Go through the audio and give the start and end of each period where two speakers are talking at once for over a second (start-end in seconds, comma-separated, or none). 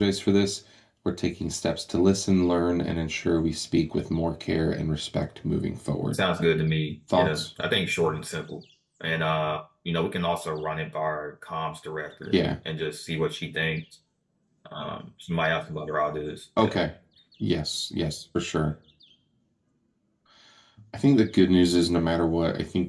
none